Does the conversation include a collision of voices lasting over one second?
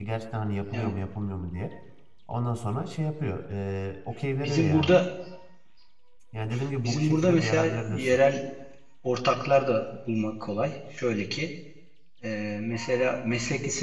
Yes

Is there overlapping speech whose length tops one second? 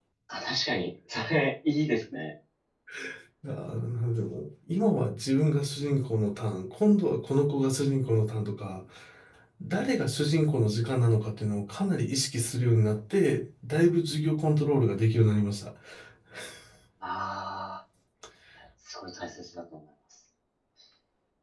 No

